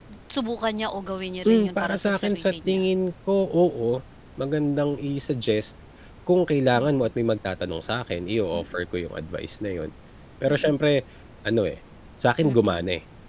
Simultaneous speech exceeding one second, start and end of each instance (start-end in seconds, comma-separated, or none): 1.4-2.8